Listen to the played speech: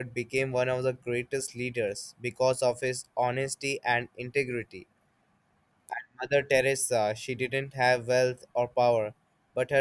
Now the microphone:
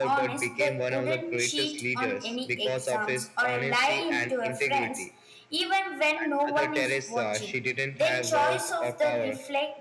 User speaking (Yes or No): Yes